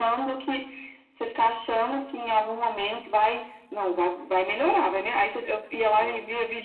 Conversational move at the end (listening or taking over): listening